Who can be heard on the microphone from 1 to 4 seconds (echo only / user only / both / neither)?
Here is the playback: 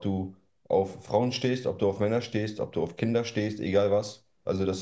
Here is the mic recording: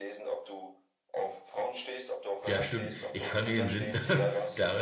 both